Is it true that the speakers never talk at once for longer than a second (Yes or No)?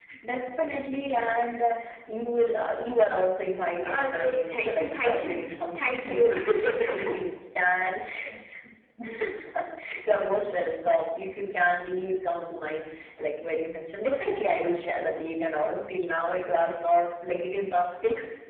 No